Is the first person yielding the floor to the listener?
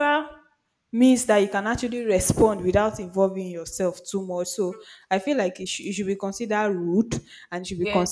No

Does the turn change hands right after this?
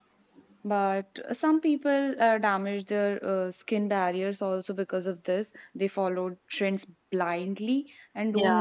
No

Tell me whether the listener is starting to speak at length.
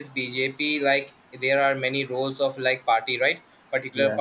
No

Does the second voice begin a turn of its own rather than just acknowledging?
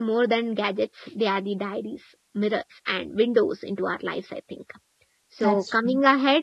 No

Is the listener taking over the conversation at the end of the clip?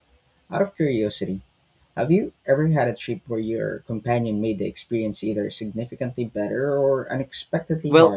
Yes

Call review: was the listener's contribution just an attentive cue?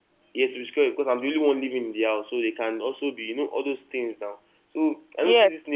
Yes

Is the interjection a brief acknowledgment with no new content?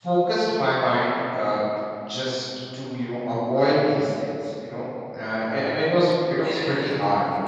Yes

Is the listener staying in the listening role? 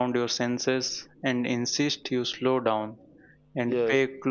Yes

